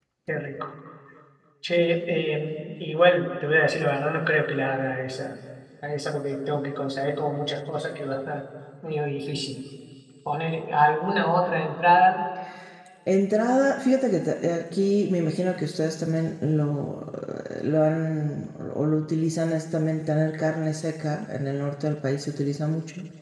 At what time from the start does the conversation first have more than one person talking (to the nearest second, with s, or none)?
none